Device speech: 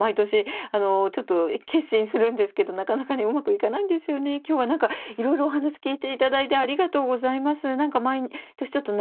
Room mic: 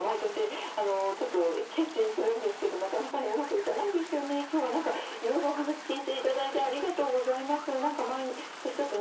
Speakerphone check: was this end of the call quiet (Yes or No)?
Yes